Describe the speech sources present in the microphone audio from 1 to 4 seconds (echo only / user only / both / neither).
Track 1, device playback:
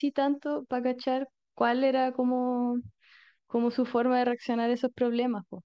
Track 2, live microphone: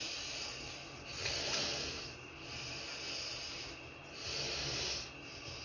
neither